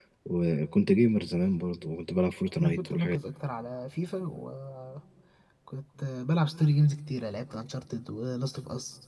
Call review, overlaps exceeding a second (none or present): none